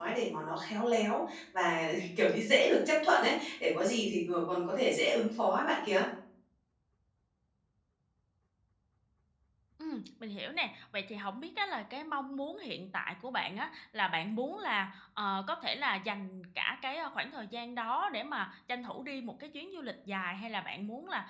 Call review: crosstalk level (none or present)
none